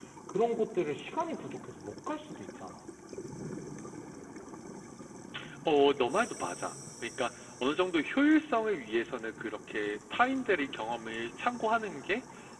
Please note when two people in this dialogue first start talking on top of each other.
none

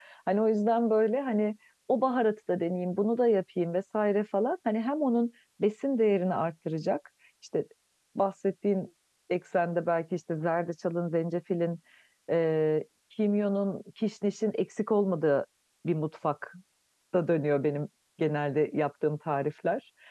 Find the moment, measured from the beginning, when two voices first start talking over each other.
none

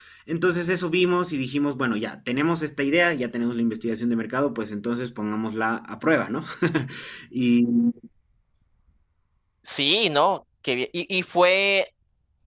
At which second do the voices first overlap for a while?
none

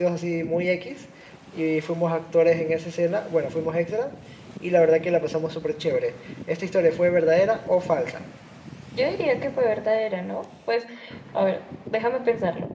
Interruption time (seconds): none

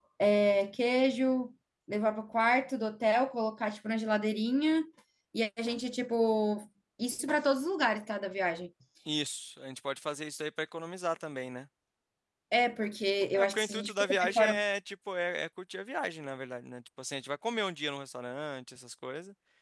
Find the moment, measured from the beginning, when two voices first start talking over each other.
13.3 s

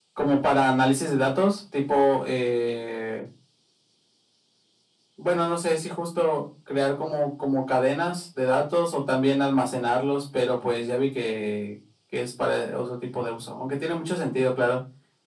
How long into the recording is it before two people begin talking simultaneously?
none

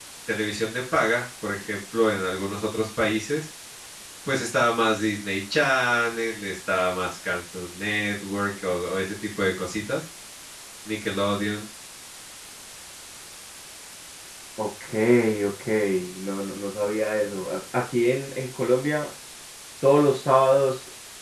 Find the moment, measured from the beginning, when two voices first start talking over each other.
none

